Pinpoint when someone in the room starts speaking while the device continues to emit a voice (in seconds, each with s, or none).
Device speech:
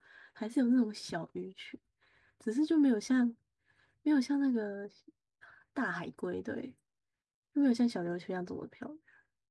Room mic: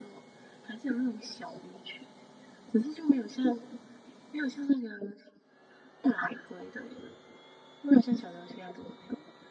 none